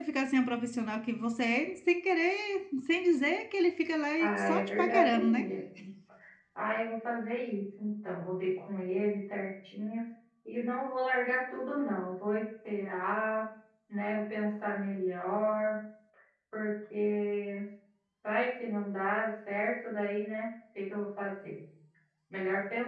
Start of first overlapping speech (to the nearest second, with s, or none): 4 s